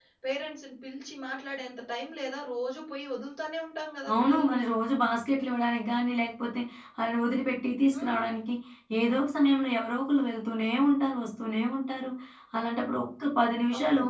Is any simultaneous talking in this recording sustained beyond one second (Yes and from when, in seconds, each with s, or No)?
No